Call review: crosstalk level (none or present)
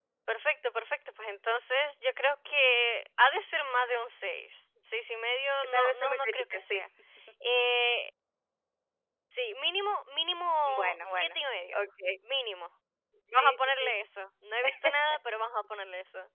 present